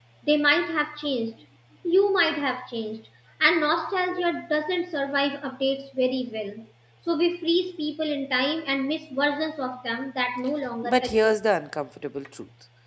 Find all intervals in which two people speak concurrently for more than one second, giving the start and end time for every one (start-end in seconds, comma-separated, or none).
none